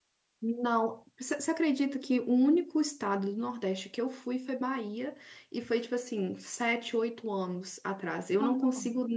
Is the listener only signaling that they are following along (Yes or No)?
Yes